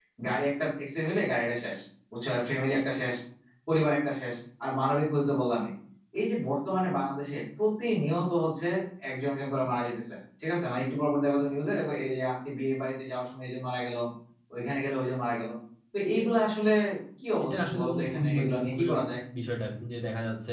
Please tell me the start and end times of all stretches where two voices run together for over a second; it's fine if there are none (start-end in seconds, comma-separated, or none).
17.4-19.1